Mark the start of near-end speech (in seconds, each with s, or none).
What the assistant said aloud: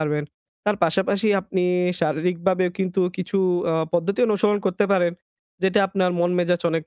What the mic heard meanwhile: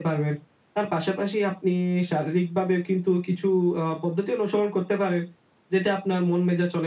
none